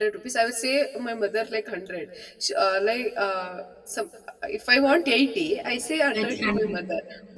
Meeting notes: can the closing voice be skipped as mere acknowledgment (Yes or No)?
Yes